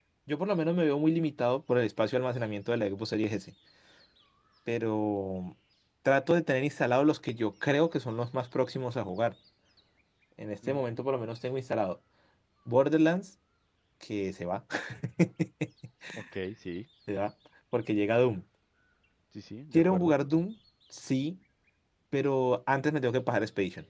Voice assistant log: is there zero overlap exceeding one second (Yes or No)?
Yes